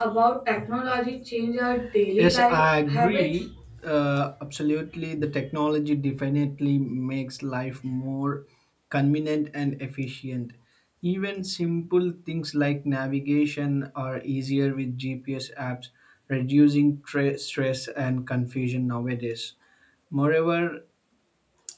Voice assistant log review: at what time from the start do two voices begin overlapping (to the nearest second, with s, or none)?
2 s